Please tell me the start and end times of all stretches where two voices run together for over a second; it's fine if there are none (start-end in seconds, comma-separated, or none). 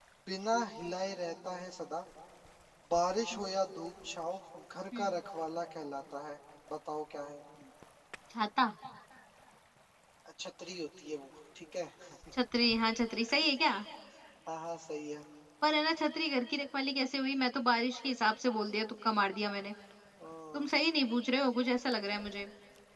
none